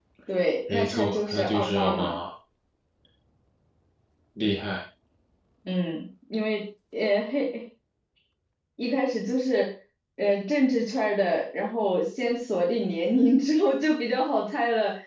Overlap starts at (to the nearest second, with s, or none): 1 s